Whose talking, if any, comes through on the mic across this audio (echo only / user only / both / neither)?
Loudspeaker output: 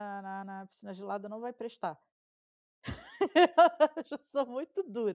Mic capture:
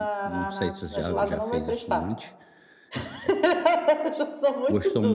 both